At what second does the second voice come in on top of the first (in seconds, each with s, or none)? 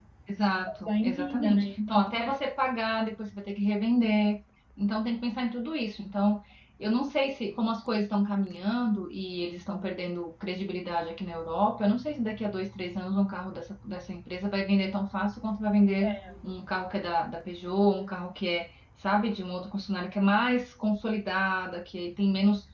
0.9 s